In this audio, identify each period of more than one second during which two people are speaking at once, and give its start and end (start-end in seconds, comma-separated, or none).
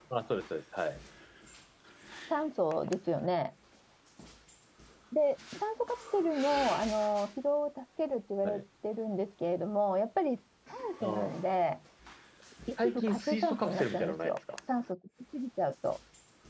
12.8-14.4